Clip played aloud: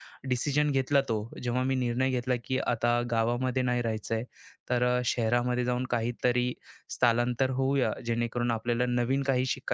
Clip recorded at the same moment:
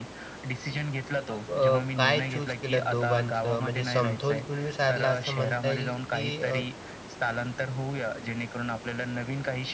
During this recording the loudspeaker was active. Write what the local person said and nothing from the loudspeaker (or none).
मग अ, काय चूज केलं दोघांचं? म्हणजे समतोल तुम्ही साधला असं म्हणता येईल, की अ,